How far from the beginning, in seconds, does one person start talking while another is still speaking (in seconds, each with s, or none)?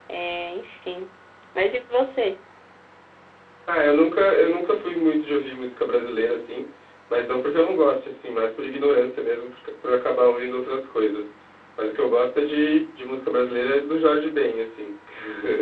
none